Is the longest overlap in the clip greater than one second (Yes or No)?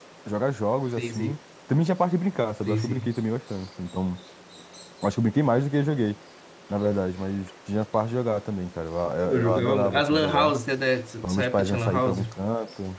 Yes